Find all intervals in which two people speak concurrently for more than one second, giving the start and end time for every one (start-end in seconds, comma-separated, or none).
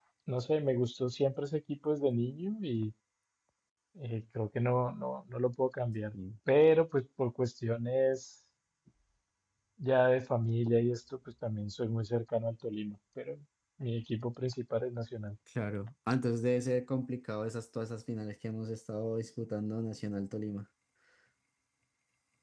none